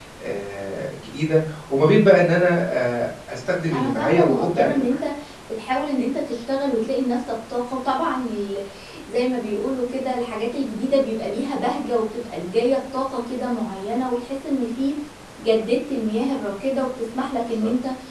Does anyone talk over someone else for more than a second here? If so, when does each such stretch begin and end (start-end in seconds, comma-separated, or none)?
3.7-5.0